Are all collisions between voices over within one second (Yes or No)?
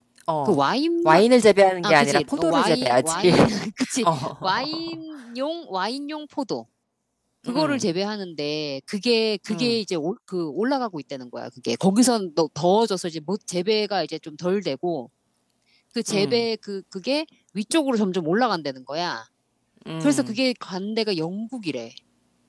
No